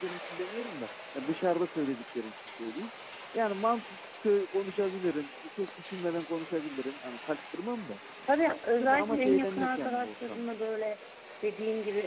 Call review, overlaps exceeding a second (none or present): present